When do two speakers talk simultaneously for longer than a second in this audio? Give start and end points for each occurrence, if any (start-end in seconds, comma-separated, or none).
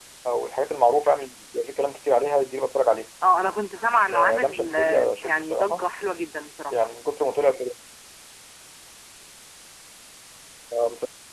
4.1-5.8